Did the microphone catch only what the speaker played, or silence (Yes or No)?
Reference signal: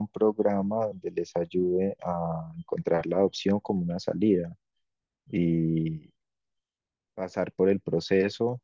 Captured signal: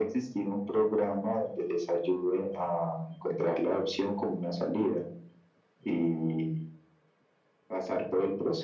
Yes